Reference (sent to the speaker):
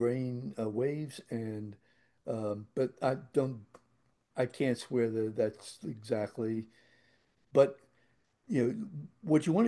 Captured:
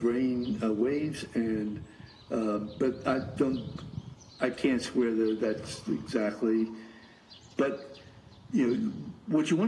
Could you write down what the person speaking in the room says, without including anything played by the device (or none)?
none